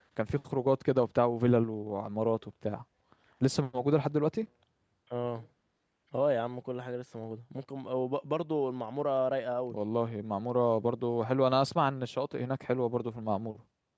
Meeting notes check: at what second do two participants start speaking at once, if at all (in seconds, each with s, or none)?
none